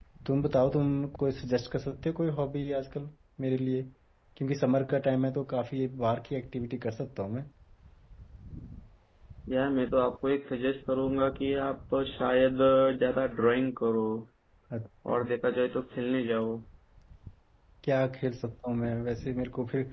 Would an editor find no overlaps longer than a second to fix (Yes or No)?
Yes